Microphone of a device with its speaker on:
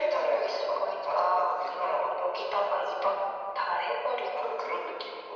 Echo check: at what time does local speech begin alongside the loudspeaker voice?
none

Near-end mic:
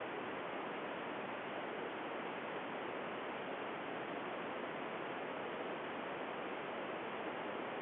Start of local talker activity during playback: none

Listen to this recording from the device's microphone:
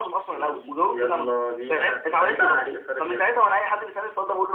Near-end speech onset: none

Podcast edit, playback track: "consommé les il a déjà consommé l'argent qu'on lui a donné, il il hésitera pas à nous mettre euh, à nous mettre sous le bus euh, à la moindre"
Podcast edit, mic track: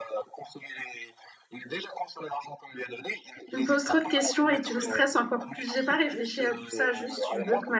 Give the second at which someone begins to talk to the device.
3.5 s

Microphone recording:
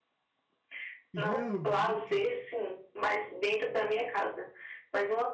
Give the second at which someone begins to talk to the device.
1.1 s

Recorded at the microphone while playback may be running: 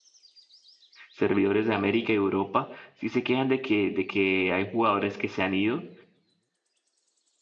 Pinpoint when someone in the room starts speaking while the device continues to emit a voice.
1.1 s

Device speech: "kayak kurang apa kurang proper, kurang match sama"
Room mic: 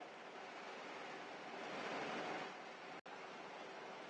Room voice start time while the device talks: none

